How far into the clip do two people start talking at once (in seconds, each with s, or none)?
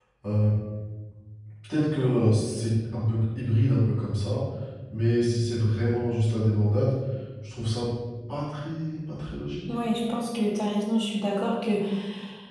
none